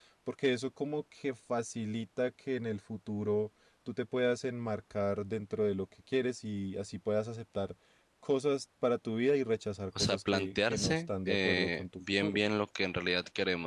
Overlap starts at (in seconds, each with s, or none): 9.9 s